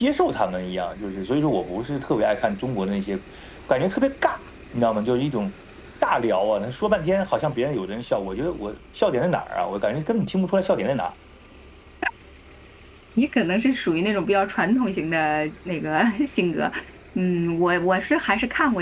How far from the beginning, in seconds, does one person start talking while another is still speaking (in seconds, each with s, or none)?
none